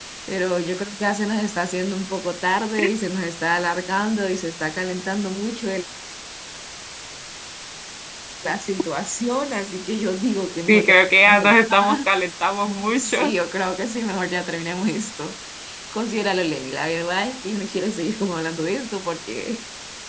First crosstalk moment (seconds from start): 10.7 s

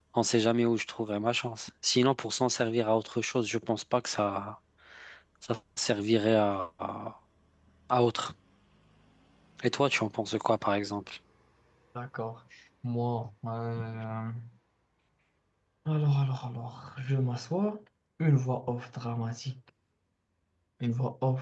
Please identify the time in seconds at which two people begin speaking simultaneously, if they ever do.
none

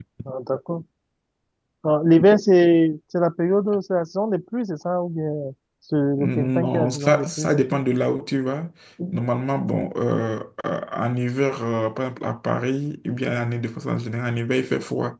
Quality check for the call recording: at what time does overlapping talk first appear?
6.2 s

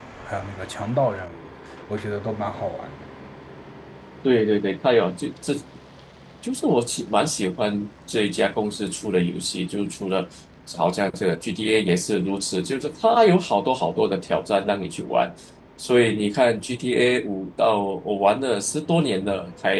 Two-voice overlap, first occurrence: none

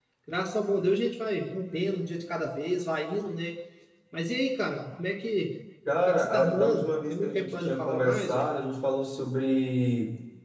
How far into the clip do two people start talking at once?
6.1 s

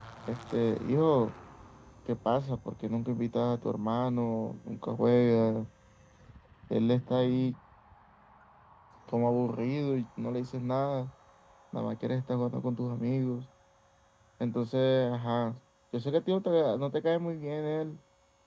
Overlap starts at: none

